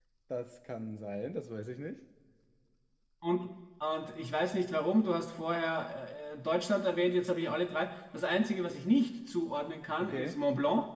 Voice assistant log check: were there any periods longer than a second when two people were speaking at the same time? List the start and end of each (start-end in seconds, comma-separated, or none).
none